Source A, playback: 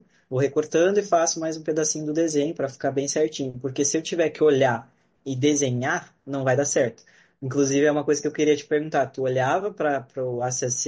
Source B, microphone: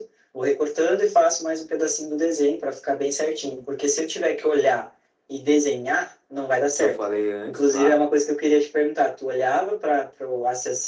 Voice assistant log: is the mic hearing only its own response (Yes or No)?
No